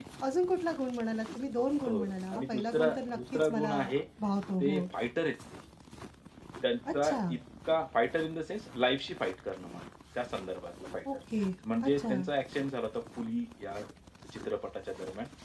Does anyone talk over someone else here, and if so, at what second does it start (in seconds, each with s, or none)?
1.9 s